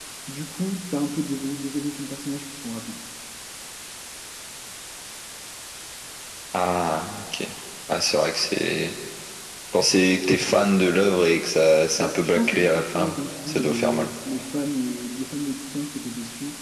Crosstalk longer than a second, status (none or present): present